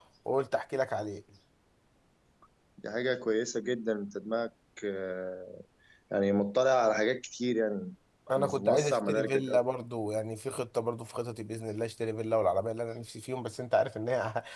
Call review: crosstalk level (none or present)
present